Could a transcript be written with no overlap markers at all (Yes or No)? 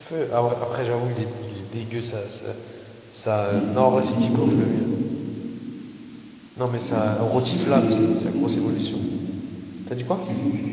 No